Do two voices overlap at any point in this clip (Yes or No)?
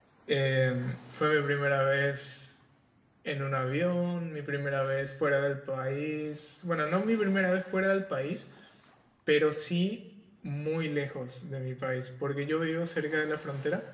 No